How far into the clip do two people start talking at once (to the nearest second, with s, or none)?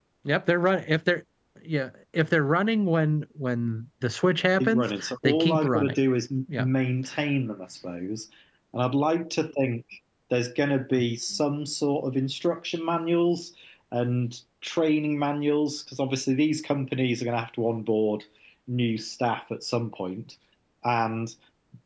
5 s